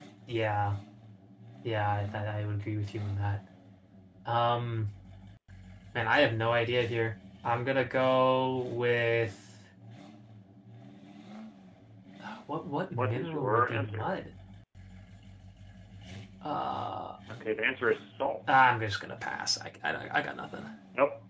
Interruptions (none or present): present